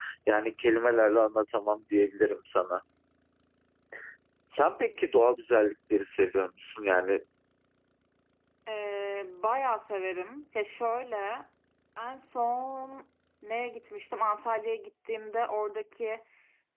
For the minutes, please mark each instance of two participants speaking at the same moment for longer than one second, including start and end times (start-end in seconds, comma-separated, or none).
none